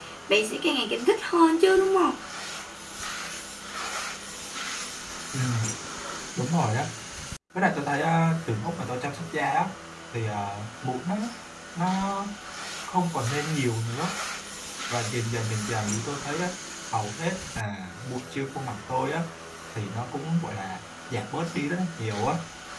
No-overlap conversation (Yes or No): Yes